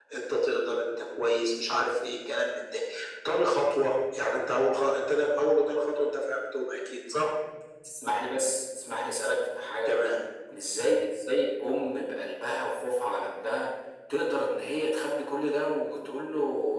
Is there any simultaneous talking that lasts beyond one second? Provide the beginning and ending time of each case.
none

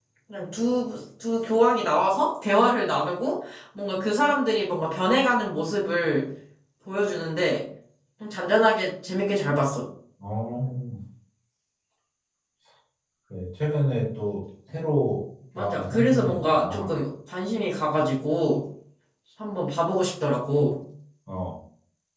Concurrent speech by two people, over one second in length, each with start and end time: 15.6-16.9

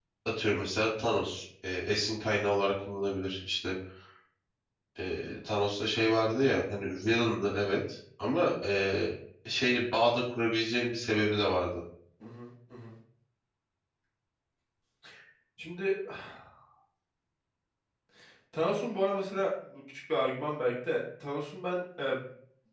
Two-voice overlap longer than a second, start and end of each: none

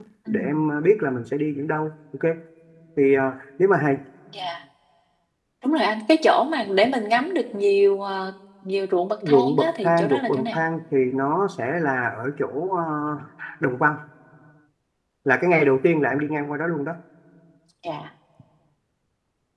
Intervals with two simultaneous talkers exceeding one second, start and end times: 9.3-10.6

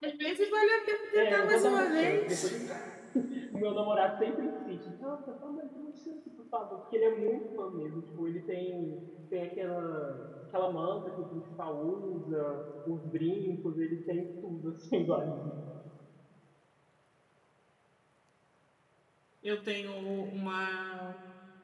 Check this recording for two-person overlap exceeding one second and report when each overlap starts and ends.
1.1-2.6

